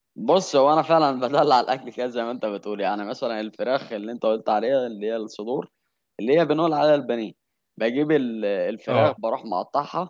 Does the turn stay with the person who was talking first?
Yes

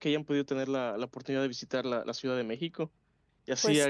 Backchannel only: Yes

